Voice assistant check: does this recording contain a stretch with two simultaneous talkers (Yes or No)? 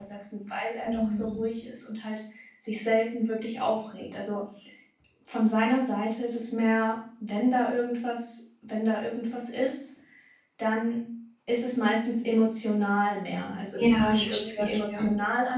Yes